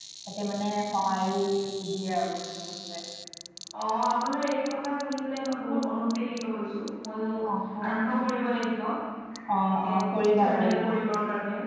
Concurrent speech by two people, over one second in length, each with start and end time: 9.7-10.9

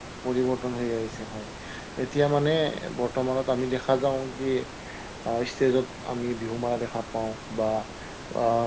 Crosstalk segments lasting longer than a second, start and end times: none

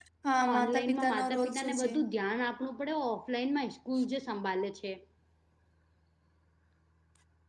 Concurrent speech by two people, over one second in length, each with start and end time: 0.5-1.9

